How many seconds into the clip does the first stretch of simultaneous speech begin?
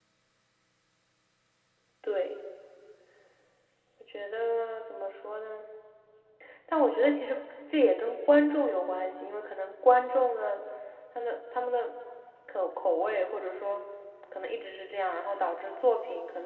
none

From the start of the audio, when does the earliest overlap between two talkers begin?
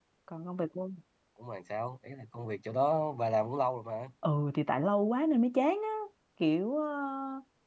none

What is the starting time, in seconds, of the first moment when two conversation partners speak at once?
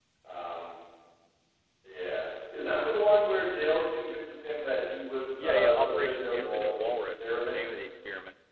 5.4 s

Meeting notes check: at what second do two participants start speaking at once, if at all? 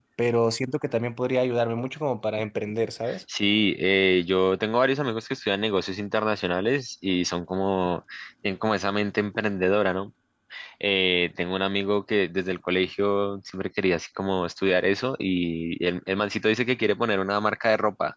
none

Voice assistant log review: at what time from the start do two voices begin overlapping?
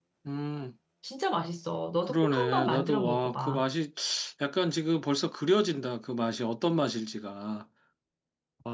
2.1 s

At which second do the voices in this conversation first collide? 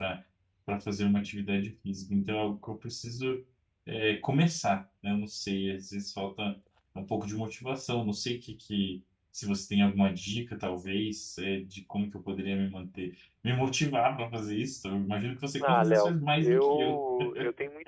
15.6 s

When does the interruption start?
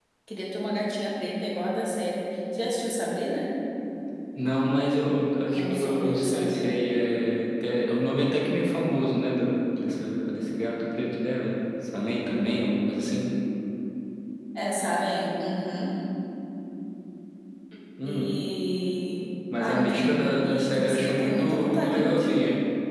5.5 s

